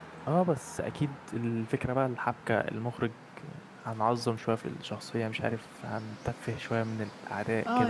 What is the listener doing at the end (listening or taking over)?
taking over